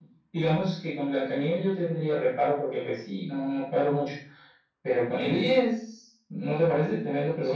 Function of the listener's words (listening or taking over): taking over